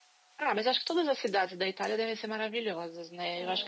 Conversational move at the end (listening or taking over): listening